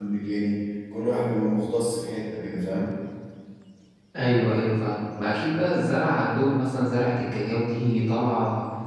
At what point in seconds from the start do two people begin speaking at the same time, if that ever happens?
none

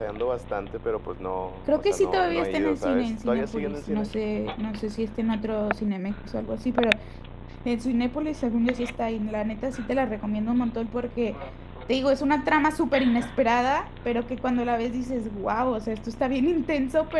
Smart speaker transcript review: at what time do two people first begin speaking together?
1.7 s

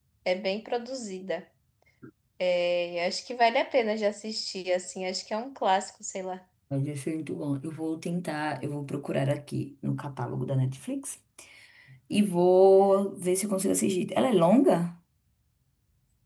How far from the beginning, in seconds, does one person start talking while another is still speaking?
none

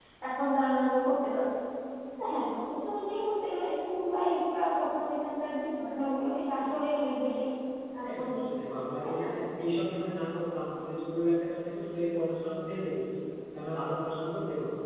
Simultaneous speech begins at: 8.0 s

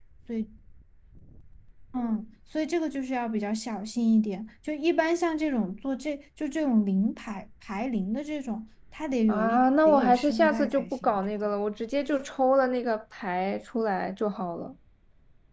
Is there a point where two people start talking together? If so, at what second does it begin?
9.3 s

